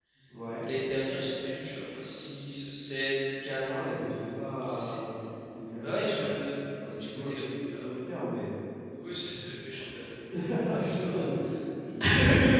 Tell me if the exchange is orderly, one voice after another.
No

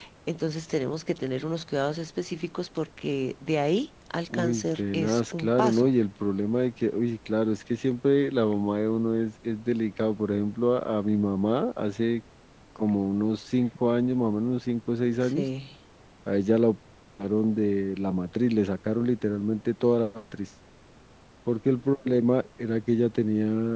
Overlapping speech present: Yes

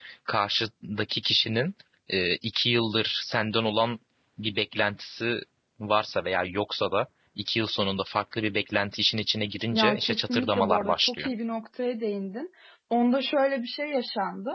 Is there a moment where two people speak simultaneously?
Yes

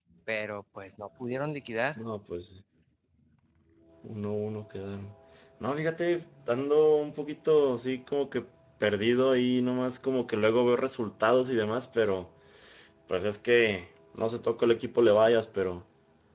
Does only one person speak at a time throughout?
Yes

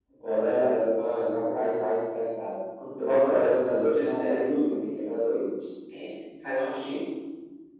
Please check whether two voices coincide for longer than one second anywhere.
No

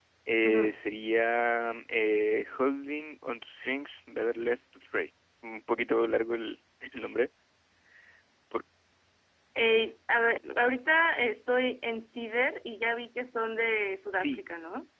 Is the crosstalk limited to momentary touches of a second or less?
Yes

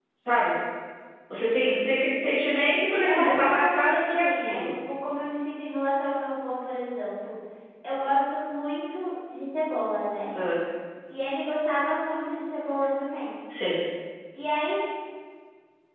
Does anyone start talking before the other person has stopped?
Yes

